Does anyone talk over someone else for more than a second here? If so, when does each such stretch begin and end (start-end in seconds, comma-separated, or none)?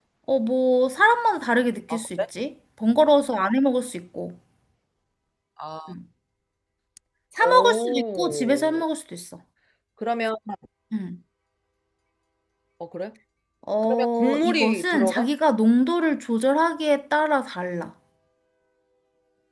7.4-8.8, 13.8-15.3